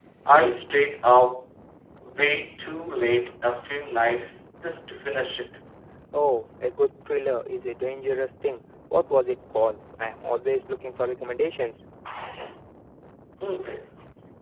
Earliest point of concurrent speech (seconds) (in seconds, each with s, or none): none